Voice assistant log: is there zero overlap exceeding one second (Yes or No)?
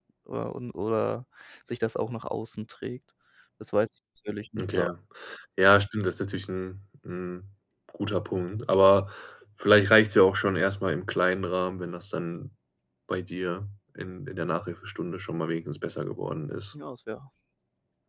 Yes